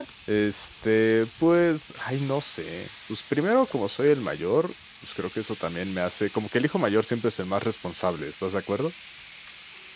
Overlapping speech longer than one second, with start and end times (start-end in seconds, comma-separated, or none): none